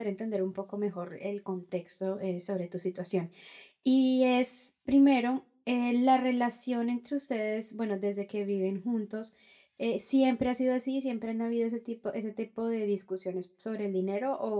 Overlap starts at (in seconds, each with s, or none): none